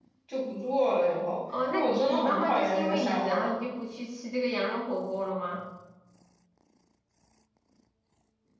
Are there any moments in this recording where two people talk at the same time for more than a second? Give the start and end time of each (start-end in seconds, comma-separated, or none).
1.7-3.5